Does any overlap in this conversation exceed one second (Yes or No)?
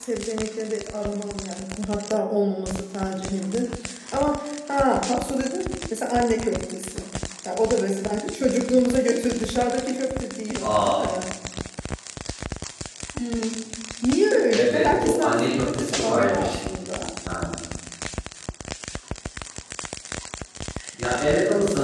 Yes